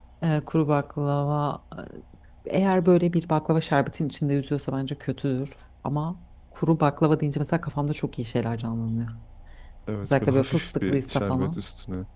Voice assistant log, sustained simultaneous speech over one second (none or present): present